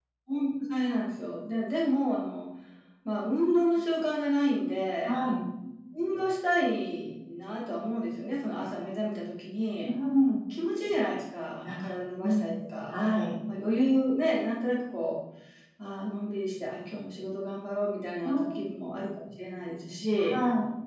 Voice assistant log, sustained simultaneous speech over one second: none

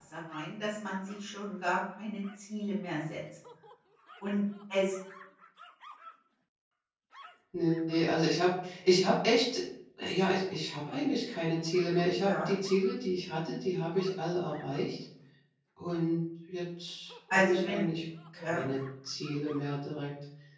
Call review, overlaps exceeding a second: none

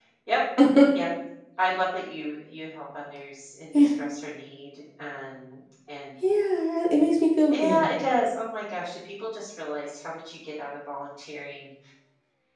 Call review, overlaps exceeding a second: none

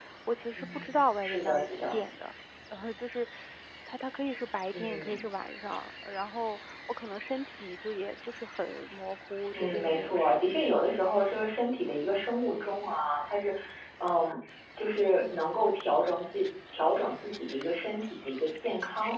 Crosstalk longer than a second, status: present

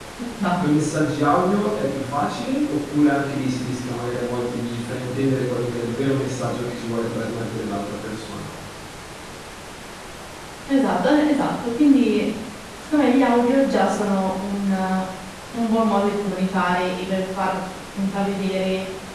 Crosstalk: none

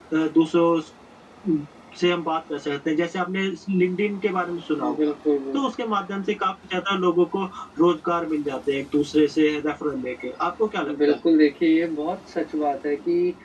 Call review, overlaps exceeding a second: none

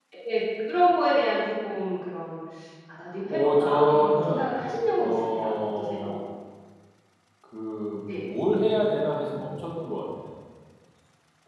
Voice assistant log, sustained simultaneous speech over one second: present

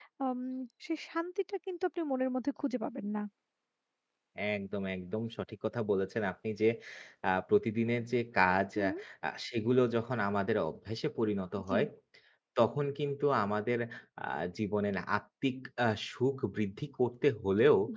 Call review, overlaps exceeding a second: none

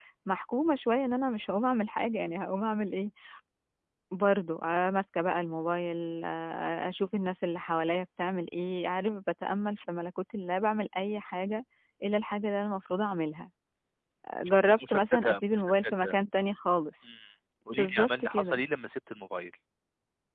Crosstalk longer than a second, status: present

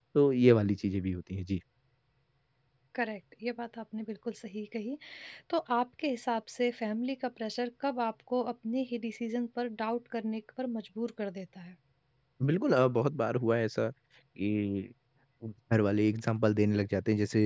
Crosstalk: none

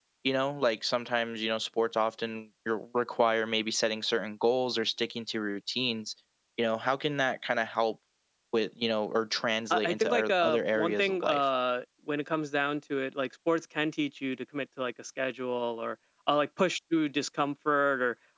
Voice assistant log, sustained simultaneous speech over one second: present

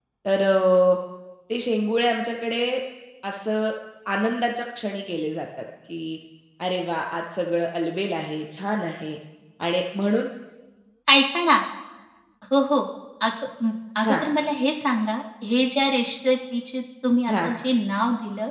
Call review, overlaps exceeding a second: none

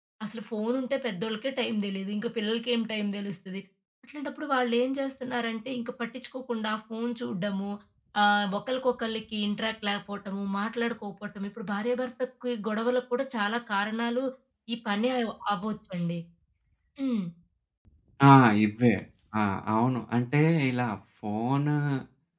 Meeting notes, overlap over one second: none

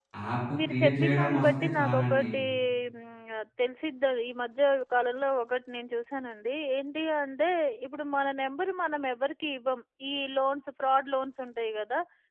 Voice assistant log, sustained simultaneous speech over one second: present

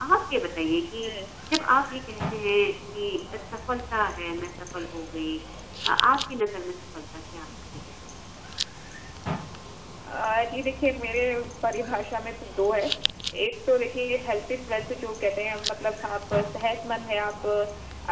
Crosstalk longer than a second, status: none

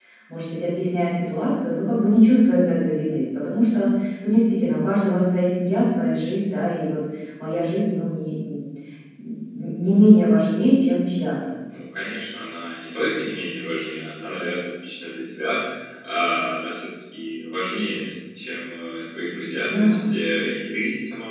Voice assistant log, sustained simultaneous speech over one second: none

